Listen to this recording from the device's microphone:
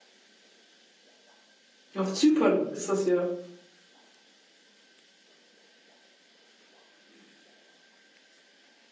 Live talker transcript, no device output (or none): Ja, auf Zypern ist das ja.